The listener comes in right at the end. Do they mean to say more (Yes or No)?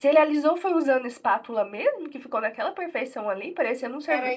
Yes